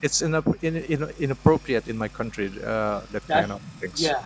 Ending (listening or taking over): taking over